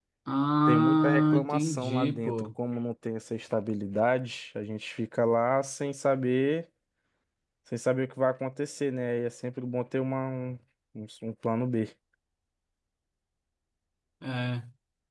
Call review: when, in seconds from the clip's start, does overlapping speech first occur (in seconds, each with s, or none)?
0.7 s